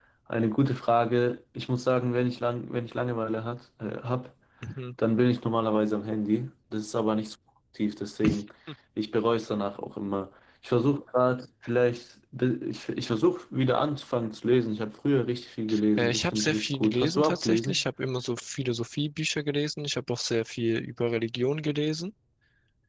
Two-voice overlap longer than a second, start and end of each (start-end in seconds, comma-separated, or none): 16.0-17.8